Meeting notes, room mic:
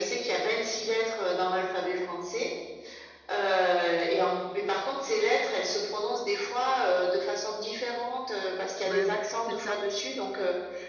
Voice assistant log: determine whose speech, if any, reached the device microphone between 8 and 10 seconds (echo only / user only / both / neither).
both